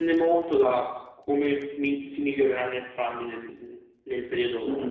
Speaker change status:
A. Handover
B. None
A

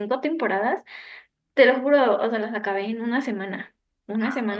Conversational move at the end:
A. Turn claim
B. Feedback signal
B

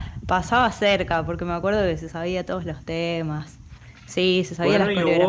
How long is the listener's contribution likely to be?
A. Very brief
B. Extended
B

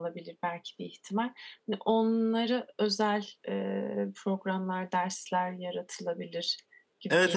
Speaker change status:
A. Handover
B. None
A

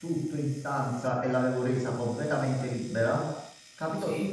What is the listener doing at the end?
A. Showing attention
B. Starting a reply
A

